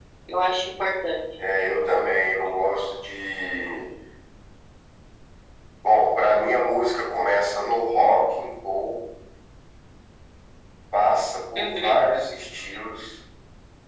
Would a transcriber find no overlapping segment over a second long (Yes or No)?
Yes